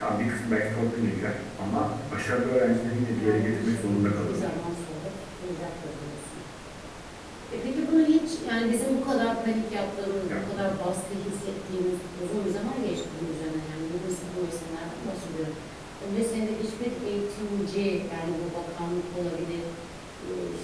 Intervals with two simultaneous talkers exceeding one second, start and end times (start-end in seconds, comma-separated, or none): 3.1-4.5